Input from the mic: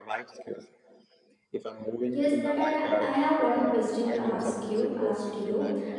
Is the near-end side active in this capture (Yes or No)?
Yes